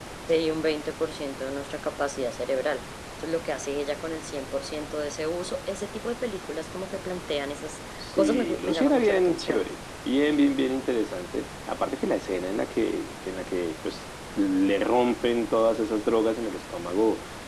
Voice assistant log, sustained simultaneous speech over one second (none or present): present